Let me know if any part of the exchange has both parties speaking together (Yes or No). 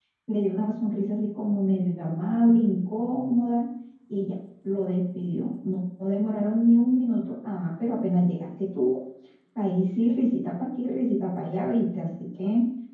No